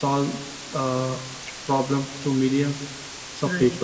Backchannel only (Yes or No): Yes